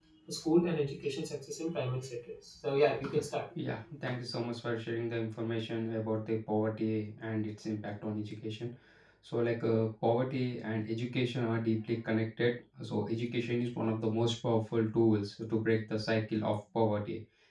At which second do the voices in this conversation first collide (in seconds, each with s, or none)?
none